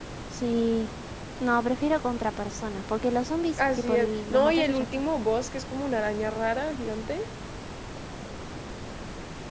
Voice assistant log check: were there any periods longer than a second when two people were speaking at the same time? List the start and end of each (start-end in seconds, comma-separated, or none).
3.6-5.0